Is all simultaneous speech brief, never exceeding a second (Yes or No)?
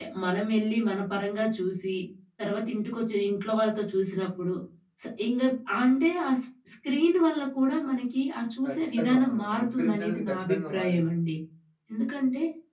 No